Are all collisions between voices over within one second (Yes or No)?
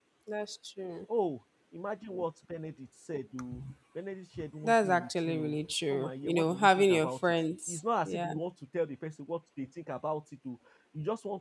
No